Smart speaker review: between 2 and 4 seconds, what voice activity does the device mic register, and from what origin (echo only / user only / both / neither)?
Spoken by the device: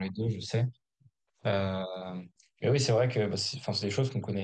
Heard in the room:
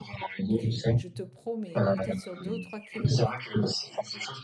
both